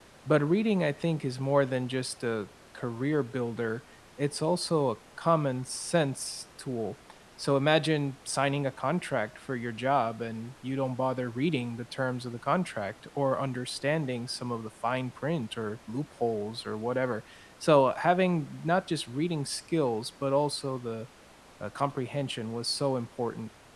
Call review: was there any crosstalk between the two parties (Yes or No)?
No